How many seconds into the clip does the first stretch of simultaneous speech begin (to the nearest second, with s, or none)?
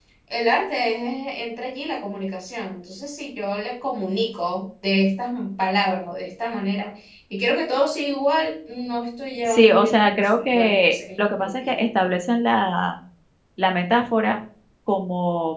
9 s